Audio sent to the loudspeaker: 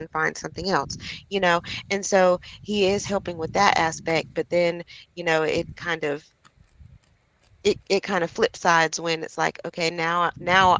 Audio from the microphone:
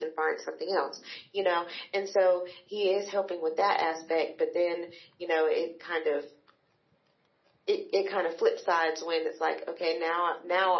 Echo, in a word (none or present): present